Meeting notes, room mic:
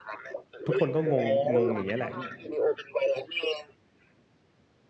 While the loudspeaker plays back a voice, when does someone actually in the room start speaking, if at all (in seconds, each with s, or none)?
0.7 s